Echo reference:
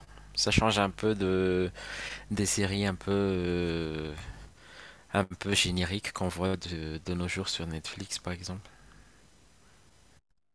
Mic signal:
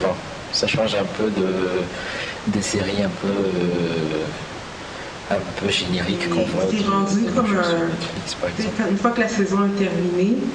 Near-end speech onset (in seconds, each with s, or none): 6.1 s